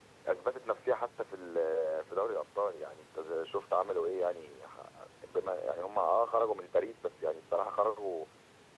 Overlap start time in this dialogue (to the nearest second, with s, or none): none